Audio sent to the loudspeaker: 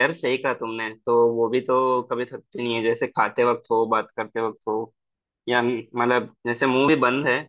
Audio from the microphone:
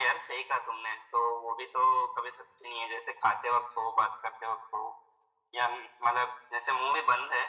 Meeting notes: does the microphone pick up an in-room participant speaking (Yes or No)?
No